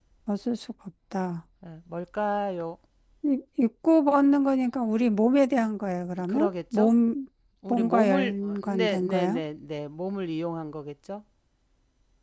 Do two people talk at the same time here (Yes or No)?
Yes